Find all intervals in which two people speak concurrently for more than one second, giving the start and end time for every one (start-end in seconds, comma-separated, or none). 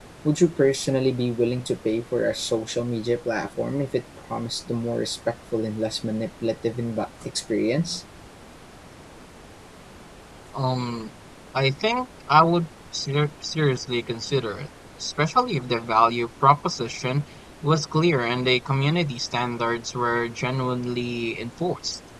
none